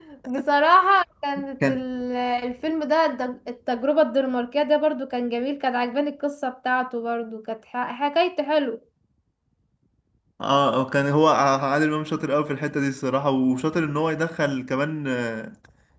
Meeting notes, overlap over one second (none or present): none